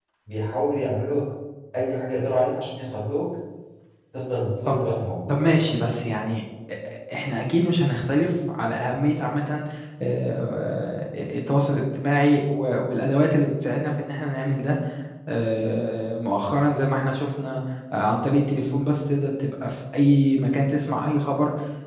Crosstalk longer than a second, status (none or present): none